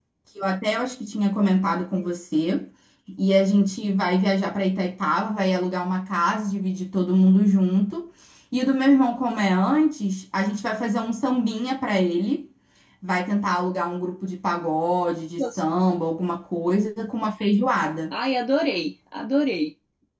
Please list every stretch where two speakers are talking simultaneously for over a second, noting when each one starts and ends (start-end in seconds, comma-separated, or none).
none